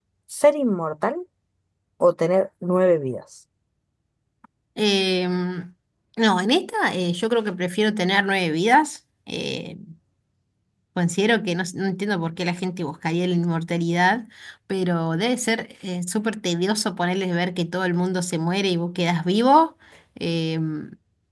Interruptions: none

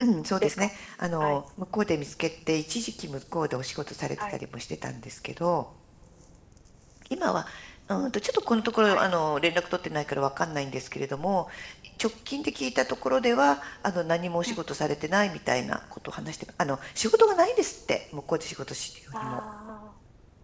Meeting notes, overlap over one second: none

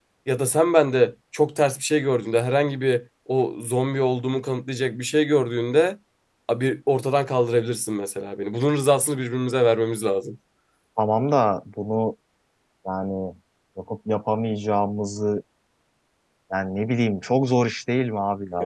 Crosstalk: none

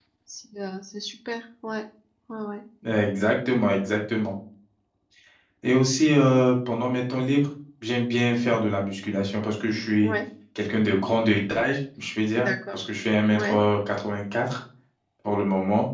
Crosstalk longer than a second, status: none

